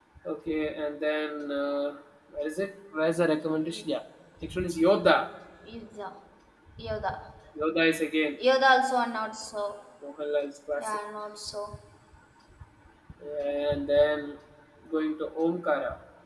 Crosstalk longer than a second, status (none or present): none